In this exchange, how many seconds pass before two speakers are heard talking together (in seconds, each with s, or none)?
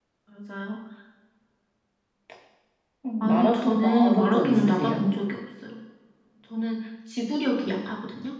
3.2 s